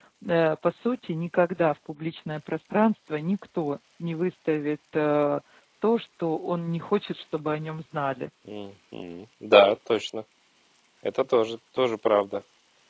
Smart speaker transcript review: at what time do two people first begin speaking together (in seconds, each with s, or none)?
none